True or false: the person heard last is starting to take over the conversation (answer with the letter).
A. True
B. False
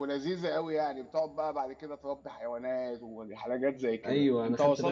A